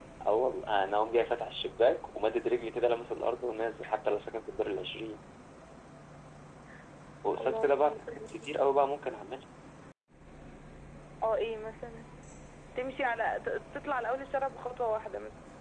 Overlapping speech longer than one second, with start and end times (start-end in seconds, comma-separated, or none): 7.2-8.5